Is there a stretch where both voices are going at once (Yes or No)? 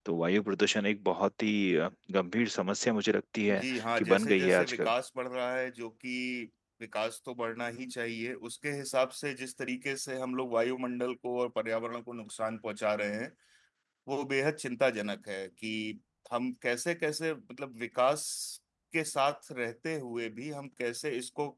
Yes